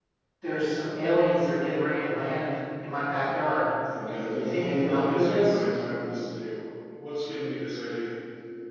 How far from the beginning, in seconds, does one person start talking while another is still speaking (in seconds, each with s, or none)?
4.4 s